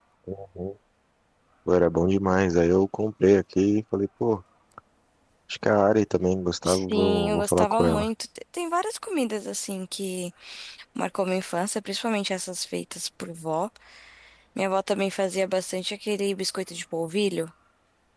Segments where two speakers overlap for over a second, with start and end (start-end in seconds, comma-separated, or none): 6.6-8.1